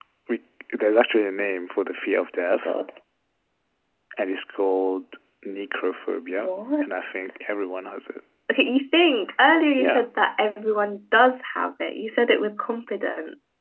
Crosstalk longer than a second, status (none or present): none